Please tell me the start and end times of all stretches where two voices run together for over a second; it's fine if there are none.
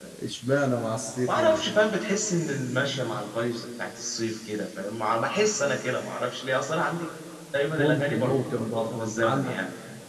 7.8-9.5

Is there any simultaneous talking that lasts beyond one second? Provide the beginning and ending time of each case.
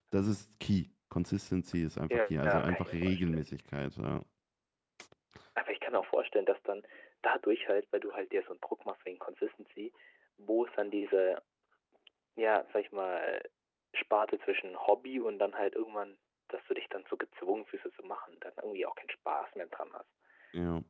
2.1-3.5

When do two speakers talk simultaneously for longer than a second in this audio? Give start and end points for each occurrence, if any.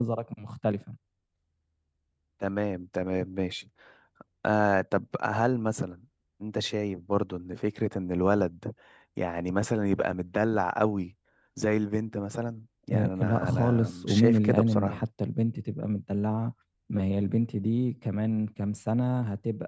12.9-15.0

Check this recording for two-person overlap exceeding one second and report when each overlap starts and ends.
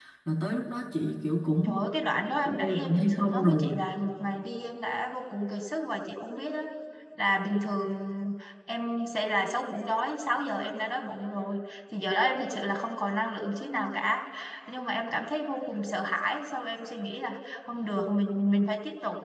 2.4-3.7

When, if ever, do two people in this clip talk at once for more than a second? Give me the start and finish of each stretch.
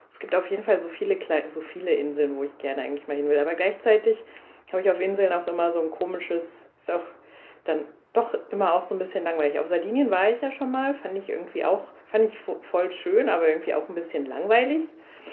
none

